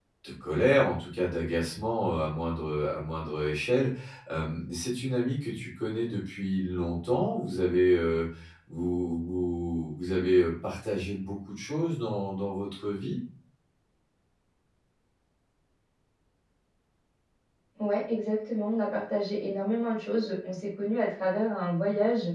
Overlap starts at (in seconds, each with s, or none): none